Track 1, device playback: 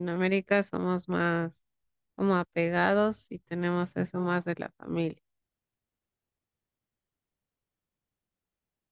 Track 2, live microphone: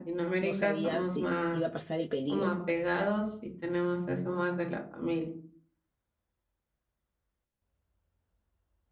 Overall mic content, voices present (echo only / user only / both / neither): both